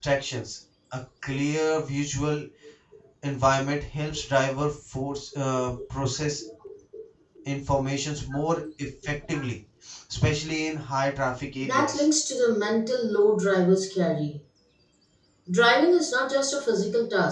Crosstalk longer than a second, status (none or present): none